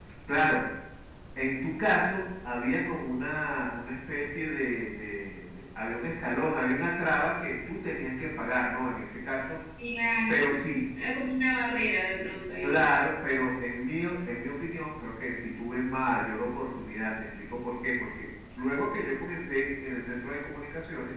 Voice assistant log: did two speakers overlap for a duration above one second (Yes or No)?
No